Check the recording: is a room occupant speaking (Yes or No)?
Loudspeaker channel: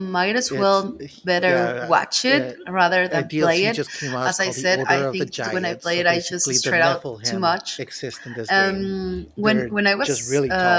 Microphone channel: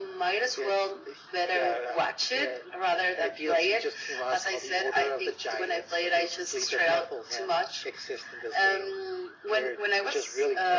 No